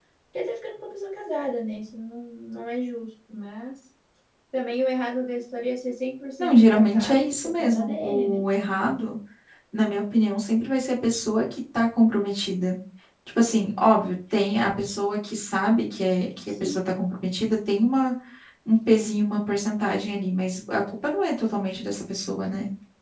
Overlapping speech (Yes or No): Yes